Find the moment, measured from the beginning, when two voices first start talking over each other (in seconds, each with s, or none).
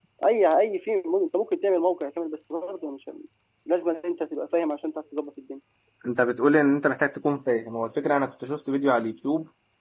none